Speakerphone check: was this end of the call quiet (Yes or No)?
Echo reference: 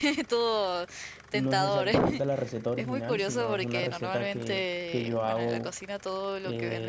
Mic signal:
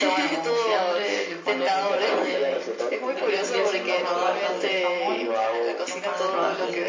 No